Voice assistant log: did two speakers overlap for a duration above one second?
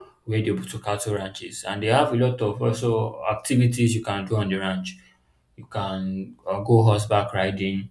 No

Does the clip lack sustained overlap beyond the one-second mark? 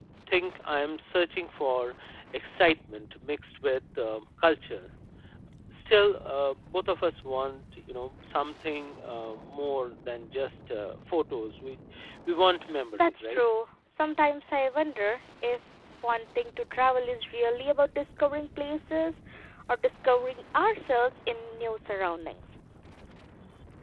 Yes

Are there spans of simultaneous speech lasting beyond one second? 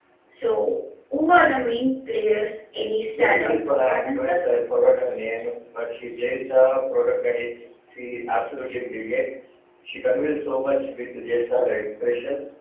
Yes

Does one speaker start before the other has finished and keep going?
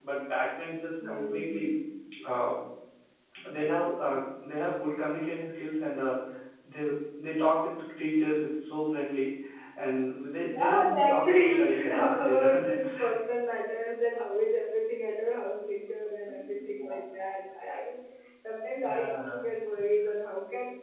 Yes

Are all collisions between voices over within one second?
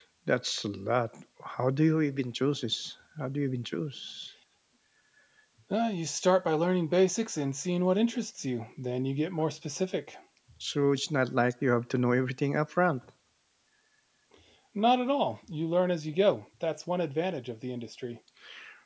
Yes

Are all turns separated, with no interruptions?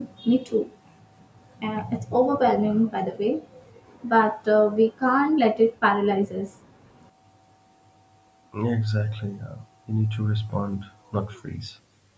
Yes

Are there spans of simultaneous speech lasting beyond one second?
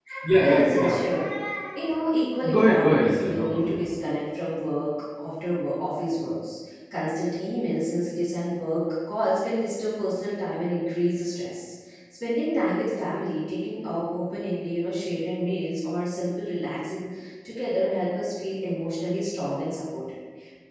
Yes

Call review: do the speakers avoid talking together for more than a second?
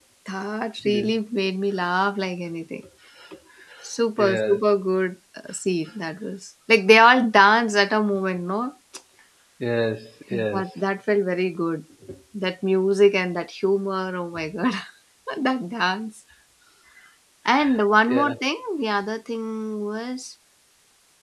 Yes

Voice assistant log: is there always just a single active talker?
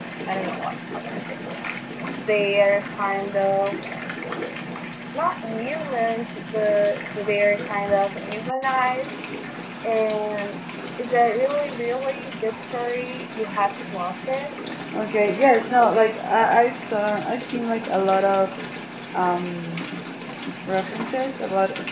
Yes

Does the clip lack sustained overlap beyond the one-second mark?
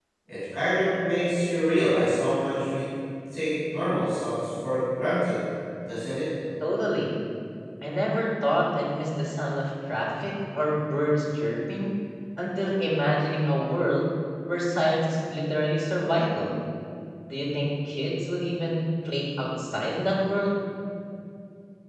Yes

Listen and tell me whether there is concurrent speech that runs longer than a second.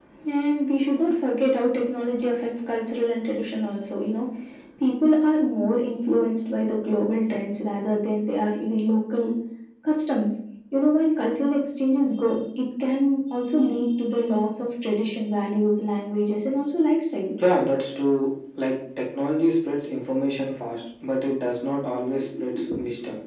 No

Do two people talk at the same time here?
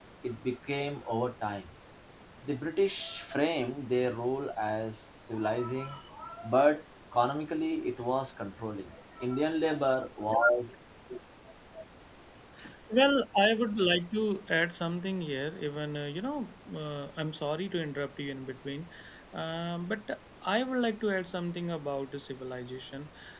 No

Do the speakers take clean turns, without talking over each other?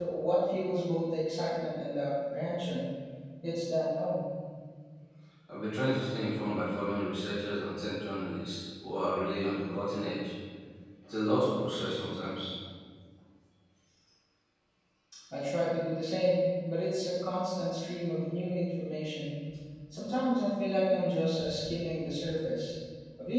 Yes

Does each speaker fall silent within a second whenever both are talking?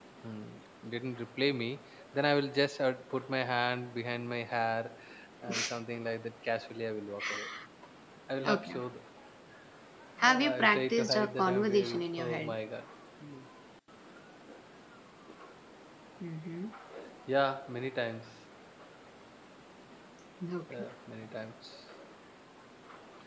No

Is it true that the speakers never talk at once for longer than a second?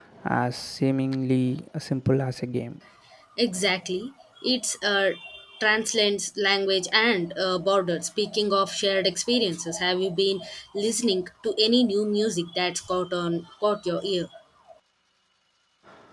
Yes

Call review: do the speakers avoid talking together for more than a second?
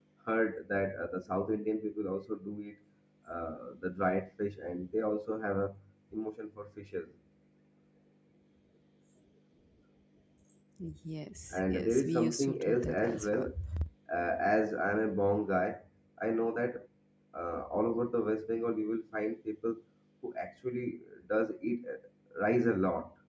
No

